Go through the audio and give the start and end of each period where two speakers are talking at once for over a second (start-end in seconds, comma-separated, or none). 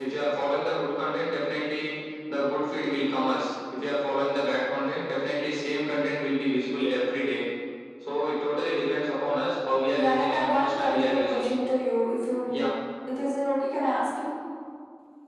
9.9-11.5